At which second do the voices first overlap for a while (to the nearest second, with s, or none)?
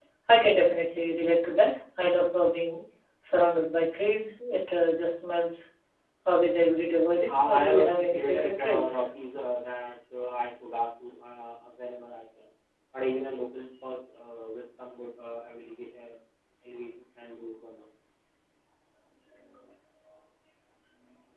7 s